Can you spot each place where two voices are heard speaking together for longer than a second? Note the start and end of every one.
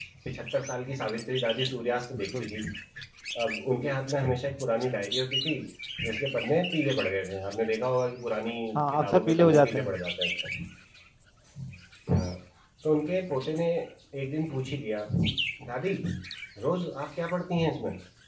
8.8-10.0

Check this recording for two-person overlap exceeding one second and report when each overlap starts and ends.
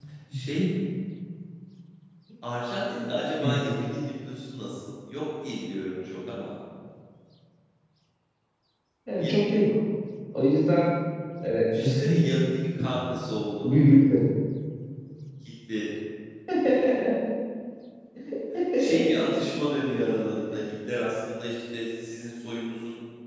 none

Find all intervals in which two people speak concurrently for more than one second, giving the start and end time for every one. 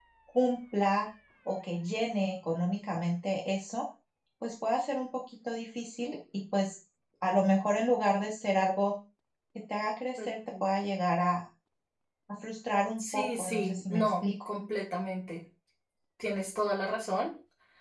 13.0-14.2

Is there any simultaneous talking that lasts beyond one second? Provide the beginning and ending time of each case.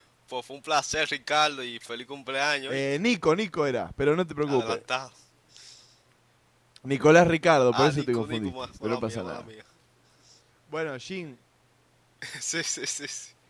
7.7-9.4

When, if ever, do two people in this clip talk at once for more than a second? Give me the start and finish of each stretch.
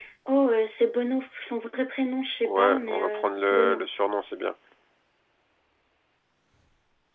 2.5-3.8

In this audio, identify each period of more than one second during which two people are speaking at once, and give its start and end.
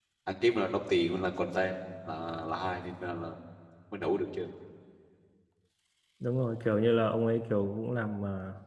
none

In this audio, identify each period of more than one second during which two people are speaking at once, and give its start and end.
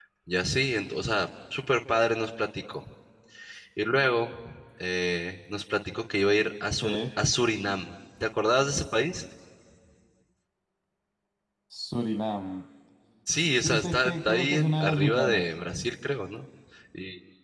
13.5-15.5

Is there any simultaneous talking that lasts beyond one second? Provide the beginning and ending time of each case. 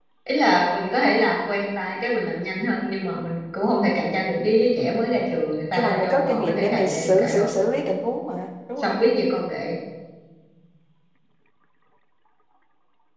5.7-7.6

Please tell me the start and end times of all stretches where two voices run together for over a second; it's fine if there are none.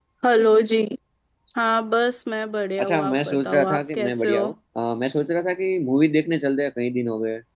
2.8-4.4

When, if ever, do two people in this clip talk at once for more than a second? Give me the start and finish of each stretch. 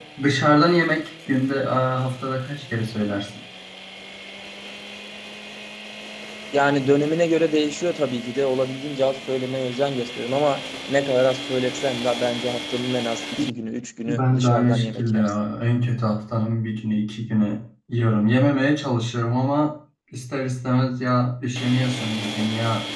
14.1-15.3

